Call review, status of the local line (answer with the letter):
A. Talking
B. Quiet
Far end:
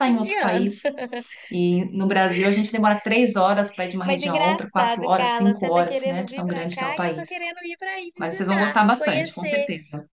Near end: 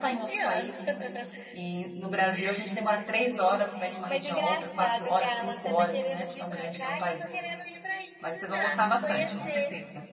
B